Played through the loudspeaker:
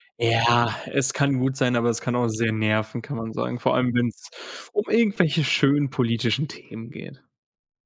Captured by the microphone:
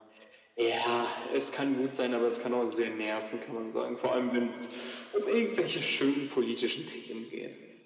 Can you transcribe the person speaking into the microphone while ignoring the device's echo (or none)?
none